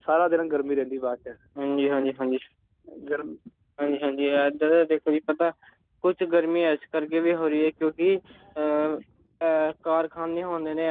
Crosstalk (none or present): none